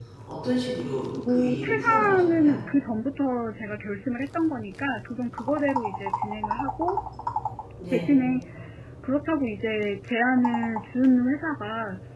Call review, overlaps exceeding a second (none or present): present